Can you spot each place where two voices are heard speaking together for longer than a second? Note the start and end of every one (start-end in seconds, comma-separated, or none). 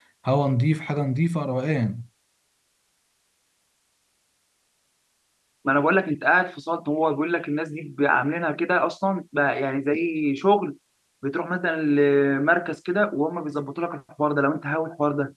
none